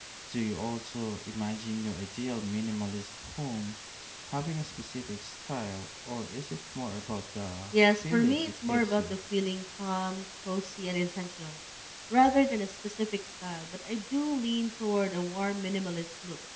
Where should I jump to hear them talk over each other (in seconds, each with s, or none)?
7.7 s